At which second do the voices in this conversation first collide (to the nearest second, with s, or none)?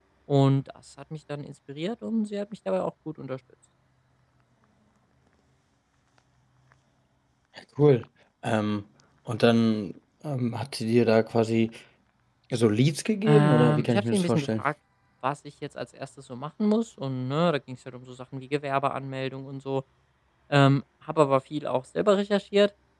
13 s